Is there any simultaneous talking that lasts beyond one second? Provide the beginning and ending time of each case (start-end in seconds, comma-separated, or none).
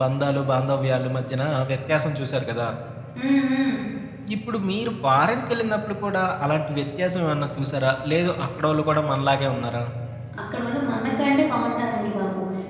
none